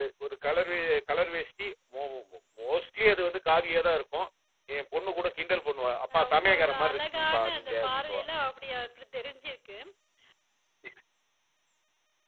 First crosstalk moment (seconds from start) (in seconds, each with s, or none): 6.1 s